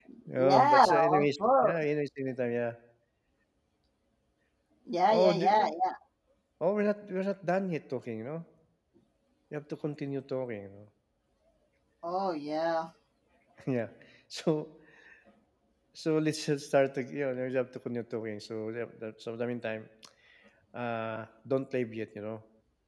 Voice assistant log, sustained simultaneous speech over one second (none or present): present